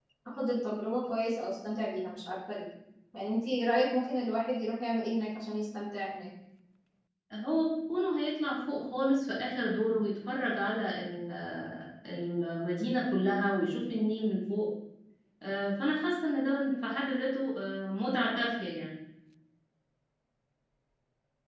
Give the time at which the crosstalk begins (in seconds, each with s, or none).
none